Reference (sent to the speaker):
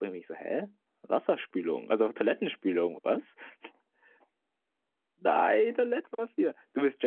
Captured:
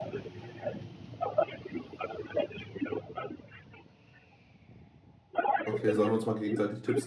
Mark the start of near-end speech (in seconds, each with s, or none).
5.7 s